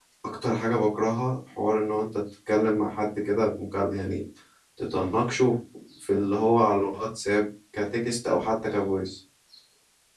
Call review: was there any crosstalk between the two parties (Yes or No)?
No